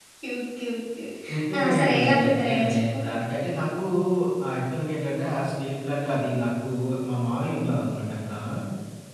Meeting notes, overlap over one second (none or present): present